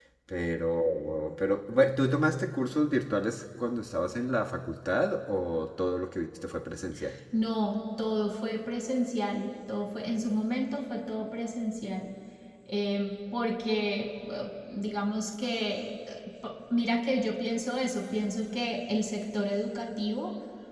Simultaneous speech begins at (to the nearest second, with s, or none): none